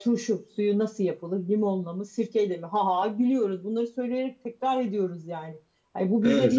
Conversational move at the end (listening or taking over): listening